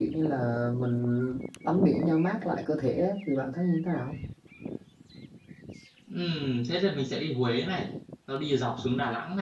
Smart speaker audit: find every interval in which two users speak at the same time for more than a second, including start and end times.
none

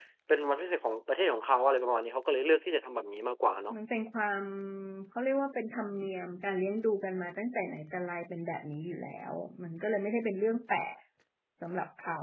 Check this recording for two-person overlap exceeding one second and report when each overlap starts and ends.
none

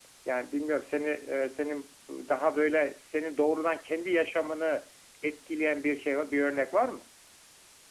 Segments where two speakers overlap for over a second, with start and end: none

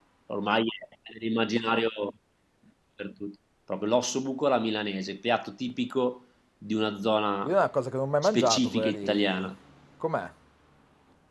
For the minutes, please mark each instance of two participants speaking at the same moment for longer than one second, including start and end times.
8.2-9.5

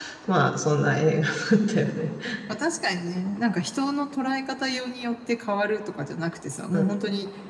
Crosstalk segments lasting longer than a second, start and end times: none

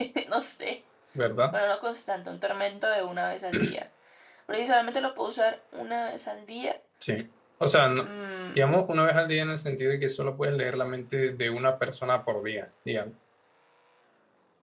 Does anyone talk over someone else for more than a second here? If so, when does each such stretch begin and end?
none

